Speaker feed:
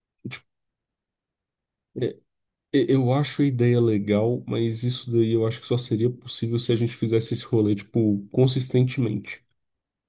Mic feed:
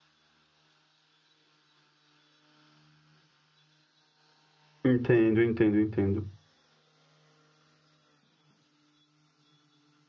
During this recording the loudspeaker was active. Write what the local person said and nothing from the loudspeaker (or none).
Entendo, entendo, entendo.